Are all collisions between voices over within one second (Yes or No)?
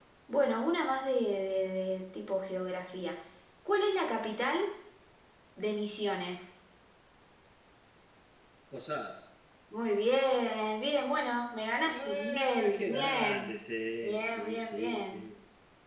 No